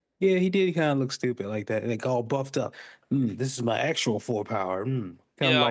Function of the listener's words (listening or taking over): taking over